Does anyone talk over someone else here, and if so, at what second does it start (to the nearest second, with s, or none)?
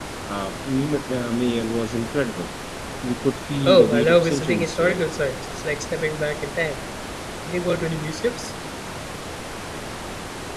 4 s